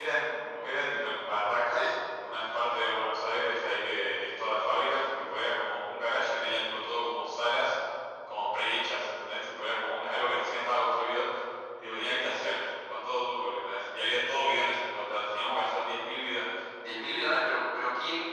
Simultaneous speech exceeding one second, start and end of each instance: none

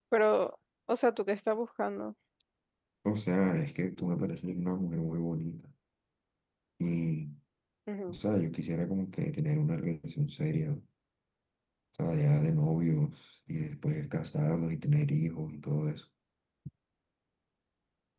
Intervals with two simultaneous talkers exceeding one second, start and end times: none

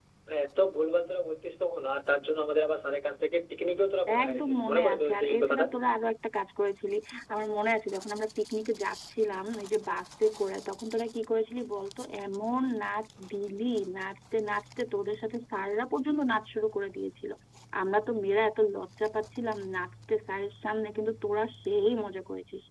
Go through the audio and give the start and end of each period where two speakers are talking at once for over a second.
4.2-5.7

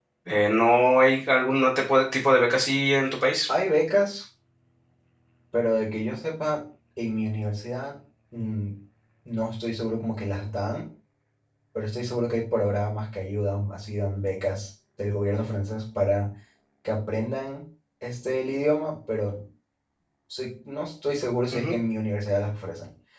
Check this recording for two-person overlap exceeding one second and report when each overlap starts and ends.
none

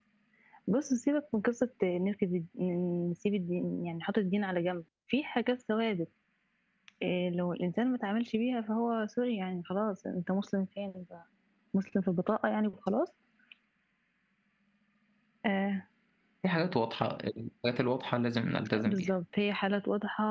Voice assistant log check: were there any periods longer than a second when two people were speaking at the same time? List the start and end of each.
none

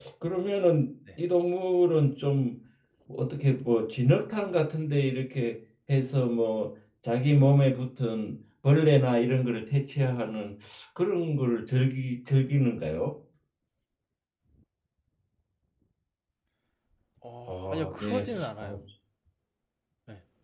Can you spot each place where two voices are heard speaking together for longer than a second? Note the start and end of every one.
17.5-18.7

